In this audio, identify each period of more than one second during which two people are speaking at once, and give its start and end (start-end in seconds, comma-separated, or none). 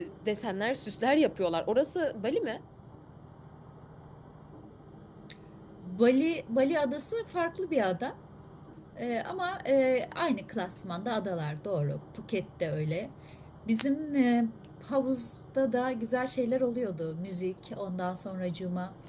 none